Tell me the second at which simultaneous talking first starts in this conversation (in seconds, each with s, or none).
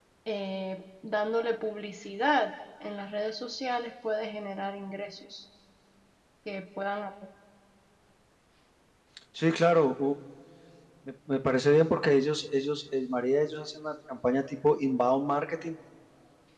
none